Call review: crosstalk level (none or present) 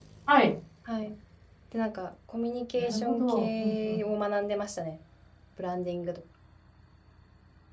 present